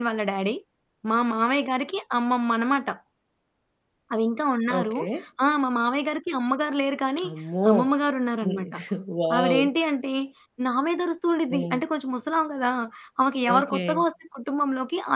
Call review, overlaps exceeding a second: none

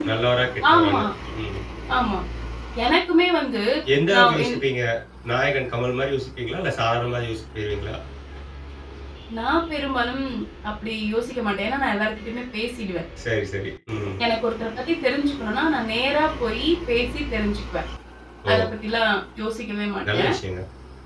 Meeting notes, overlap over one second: none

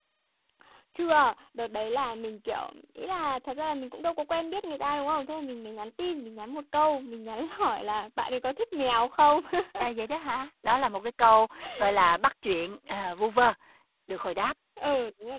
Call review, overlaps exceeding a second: none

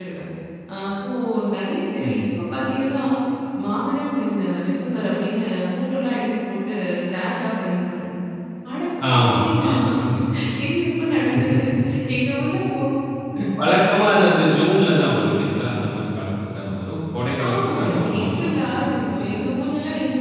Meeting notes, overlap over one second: present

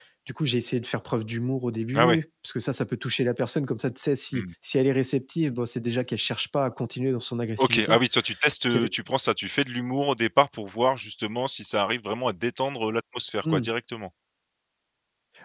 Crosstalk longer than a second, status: none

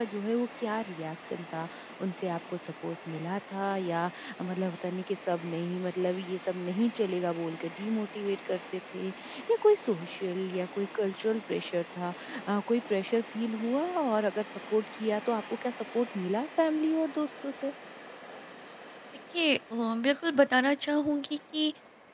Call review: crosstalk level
none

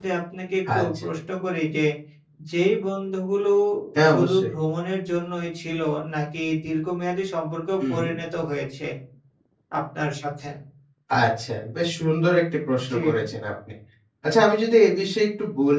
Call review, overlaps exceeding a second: none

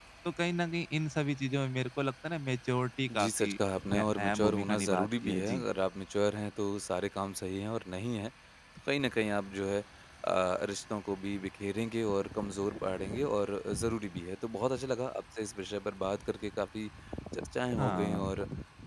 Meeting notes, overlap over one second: present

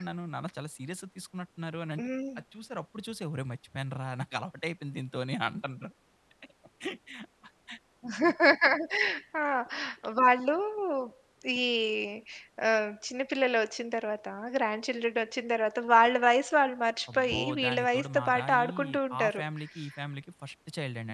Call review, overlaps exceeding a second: present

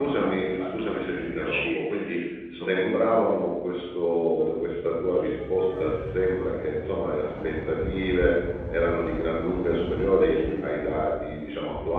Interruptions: present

